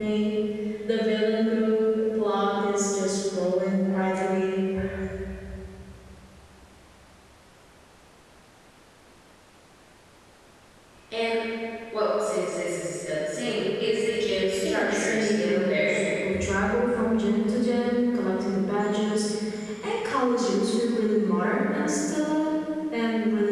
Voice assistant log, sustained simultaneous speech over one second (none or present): present